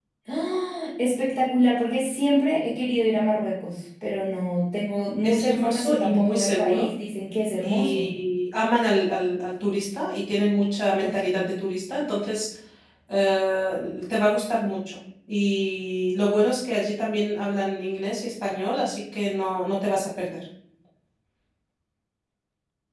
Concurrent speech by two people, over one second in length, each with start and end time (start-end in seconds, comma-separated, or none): 5.2-6.9